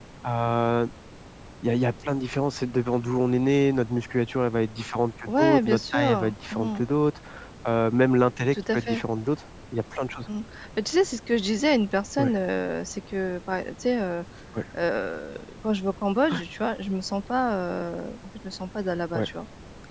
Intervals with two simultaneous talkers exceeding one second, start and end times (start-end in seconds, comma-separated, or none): 5.3-6.8